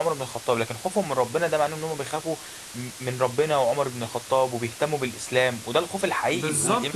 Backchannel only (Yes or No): No